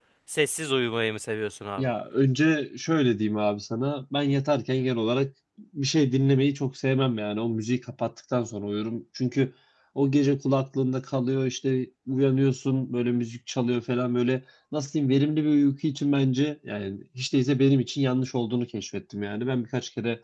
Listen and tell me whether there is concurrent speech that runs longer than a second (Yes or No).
No